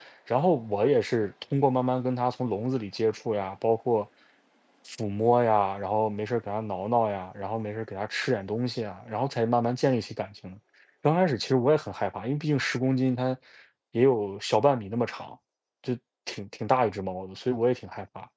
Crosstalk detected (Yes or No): No